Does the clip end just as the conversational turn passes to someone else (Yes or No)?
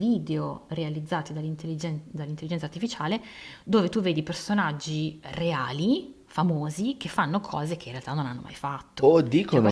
Yes